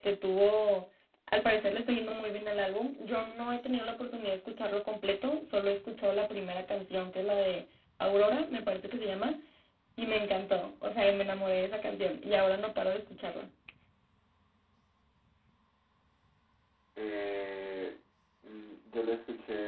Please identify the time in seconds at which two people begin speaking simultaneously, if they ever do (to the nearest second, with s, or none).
none